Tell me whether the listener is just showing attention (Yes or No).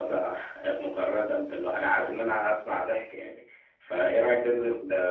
Yes